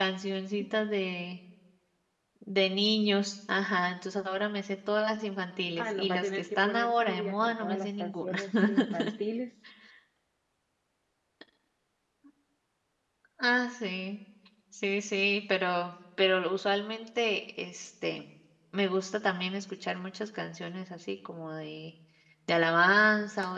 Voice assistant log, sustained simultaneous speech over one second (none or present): present